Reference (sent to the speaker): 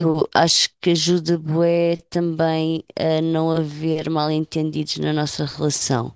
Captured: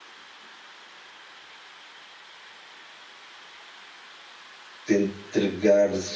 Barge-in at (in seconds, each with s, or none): 4.8 s